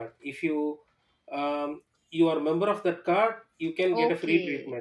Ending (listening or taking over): taking over